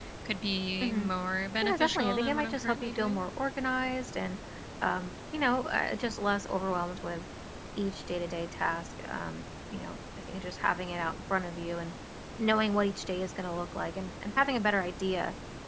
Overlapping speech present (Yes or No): Yes